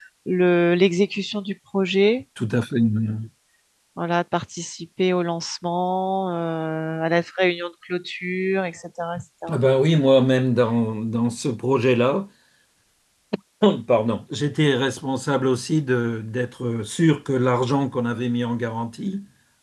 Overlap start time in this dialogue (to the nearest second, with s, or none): none